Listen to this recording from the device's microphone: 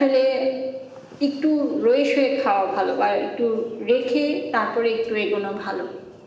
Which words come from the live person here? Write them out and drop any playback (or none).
none